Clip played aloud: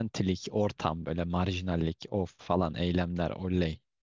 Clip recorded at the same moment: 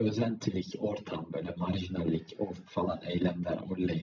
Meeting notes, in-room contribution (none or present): none